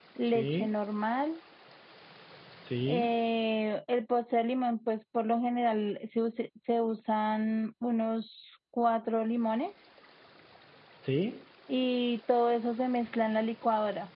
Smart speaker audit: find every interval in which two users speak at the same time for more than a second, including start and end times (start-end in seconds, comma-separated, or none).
none